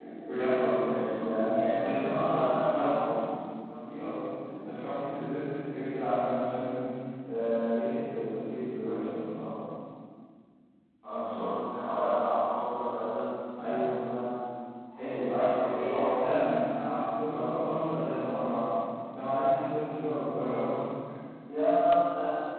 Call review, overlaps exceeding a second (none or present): present